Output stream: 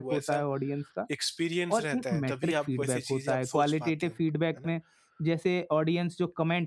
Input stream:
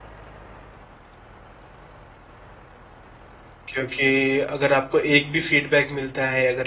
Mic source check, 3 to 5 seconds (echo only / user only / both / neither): user only